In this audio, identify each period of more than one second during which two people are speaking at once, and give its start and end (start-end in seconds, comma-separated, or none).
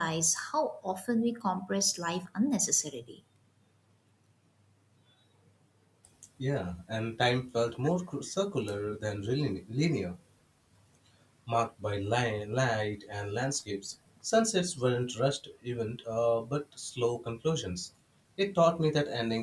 none